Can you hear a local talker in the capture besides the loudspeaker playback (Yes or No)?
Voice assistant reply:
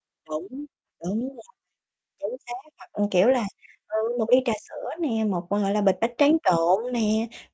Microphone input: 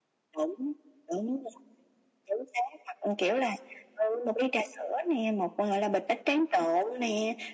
No